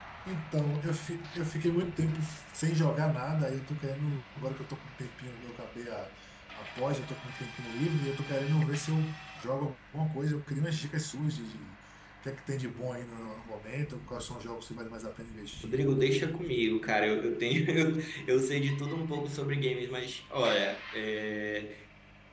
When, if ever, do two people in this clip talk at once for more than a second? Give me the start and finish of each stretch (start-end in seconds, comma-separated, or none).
none